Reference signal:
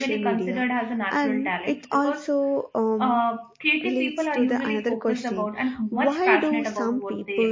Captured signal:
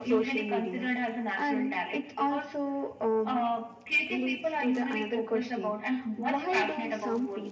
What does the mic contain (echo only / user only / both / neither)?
echo only